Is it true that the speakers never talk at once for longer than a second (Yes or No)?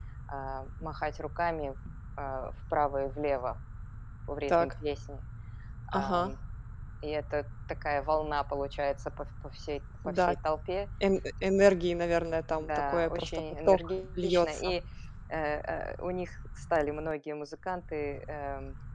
No